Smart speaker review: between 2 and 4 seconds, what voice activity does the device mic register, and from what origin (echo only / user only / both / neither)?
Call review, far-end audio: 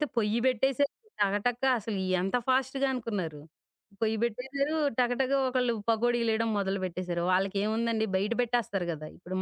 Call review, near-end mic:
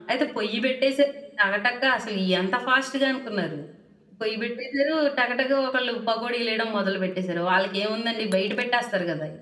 echo only